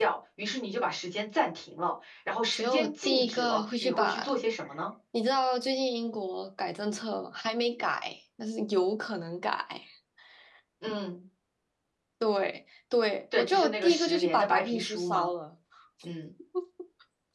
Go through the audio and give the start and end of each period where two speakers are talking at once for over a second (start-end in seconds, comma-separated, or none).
2.4-4.2, 13.4-15.3